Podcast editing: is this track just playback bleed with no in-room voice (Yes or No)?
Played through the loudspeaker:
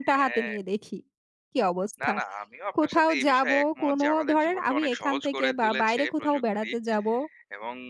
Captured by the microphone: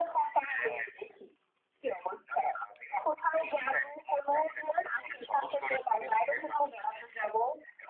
Yes